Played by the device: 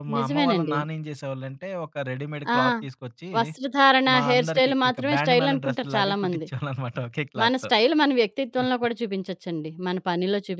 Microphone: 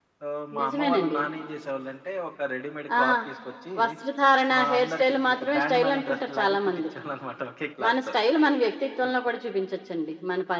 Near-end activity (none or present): none